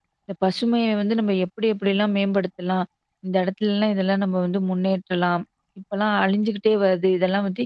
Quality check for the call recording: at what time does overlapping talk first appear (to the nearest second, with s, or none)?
none